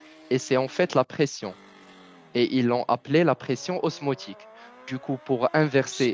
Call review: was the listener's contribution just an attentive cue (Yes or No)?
Yes